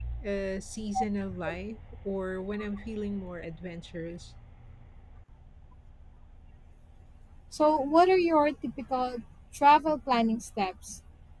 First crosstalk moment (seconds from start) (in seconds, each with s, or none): none